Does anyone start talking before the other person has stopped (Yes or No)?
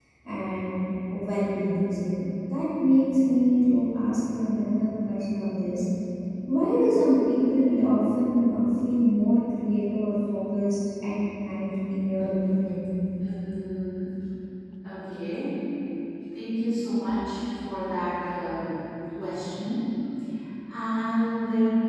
No